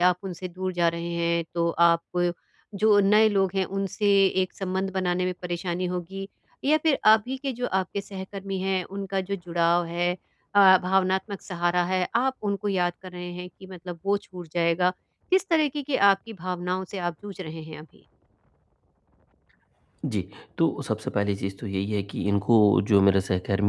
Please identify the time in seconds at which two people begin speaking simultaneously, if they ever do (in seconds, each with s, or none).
none